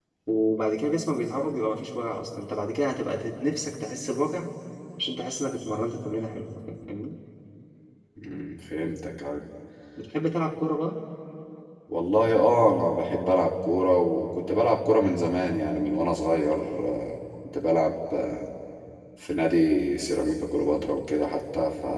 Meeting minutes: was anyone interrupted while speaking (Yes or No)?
No